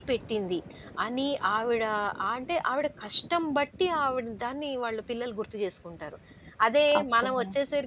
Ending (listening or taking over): listening